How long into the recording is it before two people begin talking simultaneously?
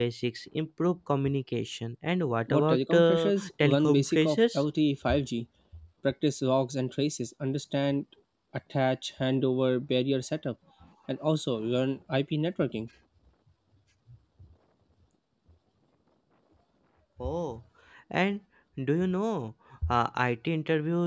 2.5 s

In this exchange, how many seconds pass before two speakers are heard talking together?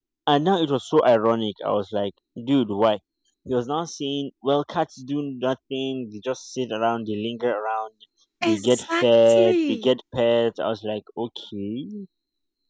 8.4 s

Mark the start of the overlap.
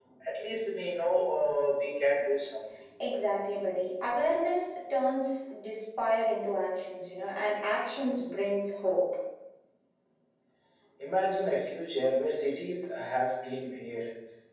none

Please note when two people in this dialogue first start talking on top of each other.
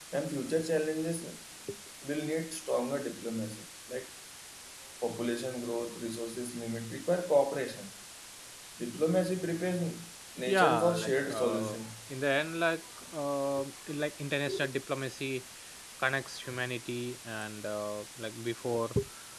10.5 s

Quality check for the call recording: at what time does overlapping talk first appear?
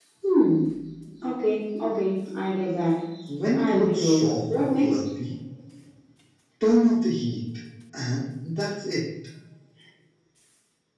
3.5 s

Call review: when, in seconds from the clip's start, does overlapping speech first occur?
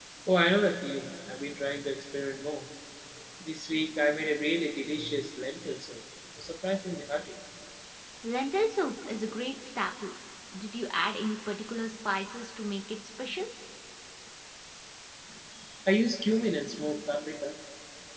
none

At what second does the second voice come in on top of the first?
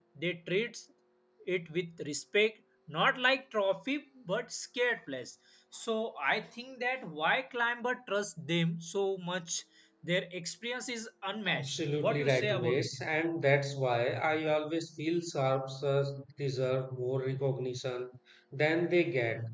11.4 s

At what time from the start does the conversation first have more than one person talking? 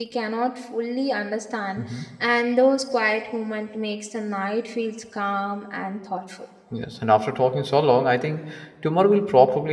none

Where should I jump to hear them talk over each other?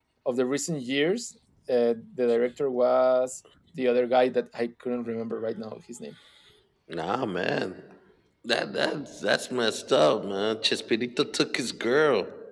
none

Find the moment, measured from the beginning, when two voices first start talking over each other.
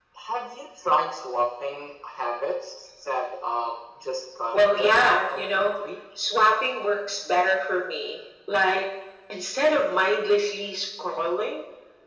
4.5 s

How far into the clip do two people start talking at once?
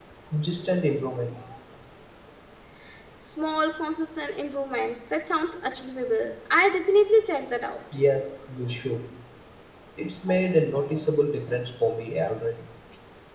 none

